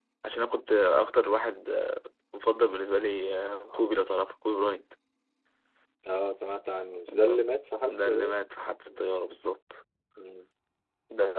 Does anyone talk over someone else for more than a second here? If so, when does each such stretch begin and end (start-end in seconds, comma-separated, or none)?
none